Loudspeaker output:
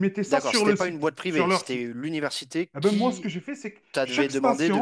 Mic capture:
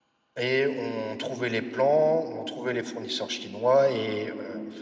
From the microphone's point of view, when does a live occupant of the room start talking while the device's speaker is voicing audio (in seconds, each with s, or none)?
0.4 s